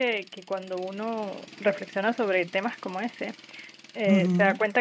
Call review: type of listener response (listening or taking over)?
listening